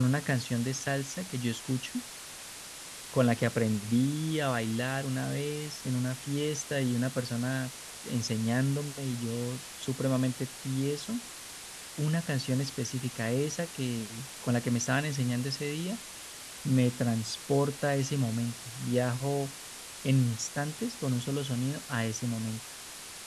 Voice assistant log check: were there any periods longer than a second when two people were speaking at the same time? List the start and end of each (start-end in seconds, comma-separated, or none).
none